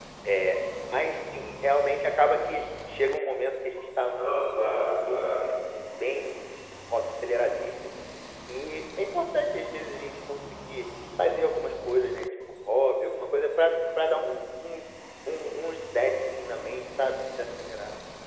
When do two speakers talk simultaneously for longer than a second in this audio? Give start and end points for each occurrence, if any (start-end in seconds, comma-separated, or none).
4.2-5.5